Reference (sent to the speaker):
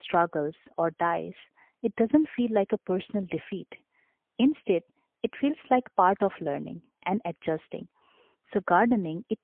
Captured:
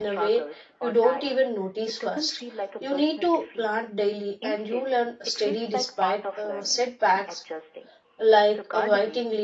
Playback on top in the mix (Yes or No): No